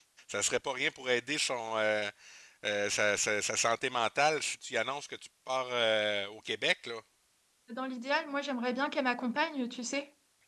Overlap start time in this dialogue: none

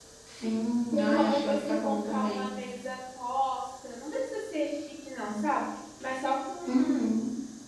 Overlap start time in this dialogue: 0.9 s

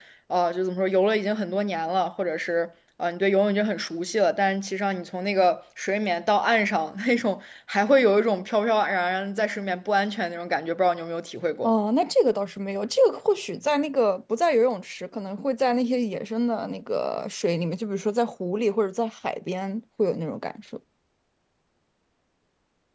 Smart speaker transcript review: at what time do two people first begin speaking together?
none

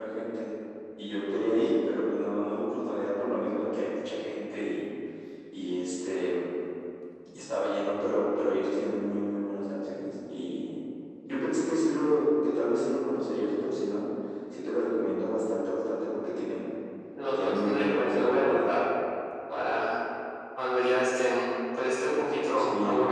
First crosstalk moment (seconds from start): 17.3 s

